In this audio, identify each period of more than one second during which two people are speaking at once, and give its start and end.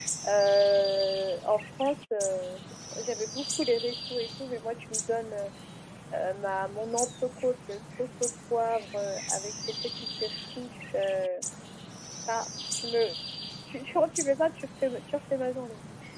none

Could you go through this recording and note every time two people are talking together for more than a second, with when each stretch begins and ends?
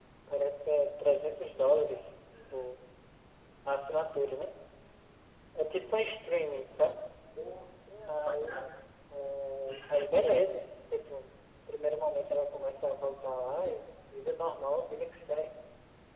none

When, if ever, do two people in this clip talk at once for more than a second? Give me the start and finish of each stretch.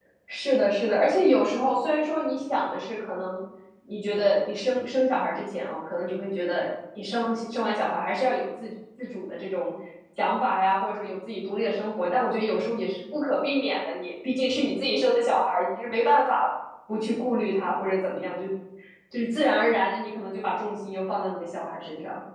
none

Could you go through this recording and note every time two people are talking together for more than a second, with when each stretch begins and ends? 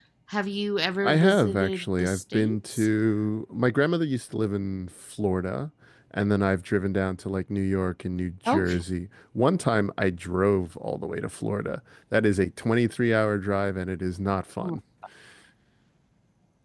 1.0-2.9

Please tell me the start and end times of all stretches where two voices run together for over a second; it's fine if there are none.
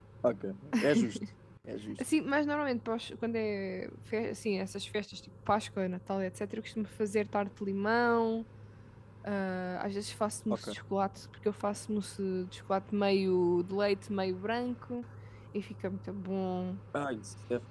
none

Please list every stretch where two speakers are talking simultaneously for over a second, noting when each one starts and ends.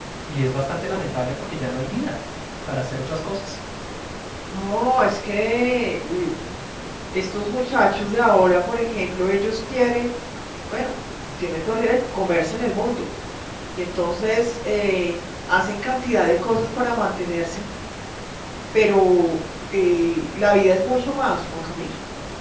none

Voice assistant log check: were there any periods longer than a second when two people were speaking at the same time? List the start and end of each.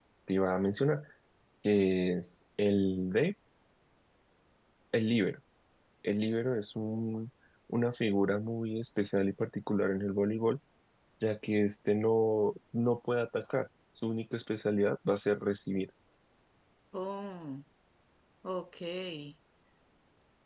none

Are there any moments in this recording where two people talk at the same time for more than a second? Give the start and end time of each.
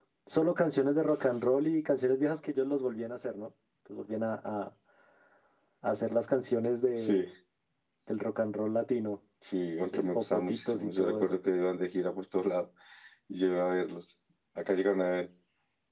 9.9-11.4

